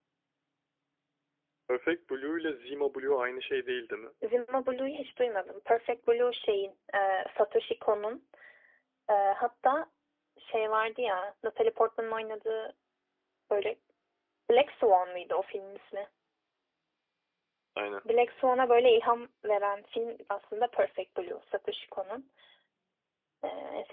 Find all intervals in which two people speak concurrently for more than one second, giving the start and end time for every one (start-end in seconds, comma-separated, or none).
none